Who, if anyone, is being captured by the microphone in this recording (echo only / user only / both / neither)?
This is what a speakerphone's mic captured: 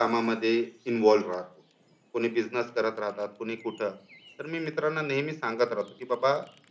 echo only